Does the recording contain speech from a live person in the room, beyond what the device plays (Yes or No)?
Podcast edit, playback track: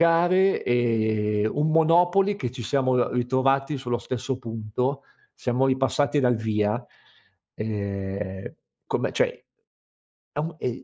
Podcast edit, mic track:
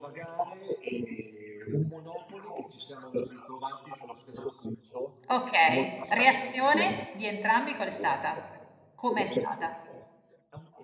Yes